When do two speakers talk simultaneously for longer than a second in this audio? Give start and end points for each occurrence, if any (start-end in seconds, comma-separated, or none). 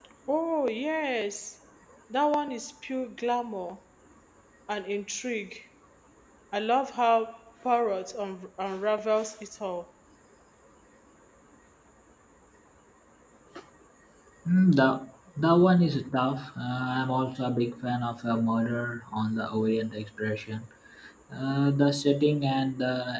none